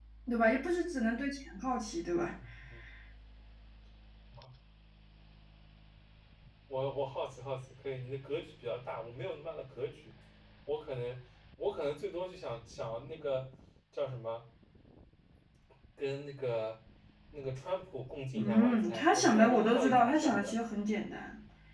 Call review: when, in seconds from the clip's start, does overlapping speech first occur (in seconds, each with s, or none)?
18.3 s